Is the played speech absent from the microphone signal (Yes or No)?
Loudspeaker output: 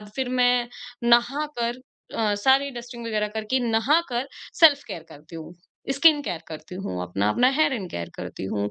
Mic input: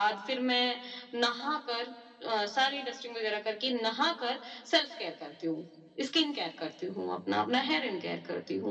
No